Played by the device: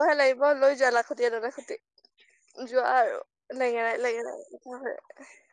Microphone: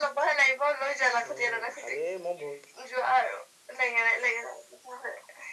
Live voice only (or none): উম কালি মই ভৰি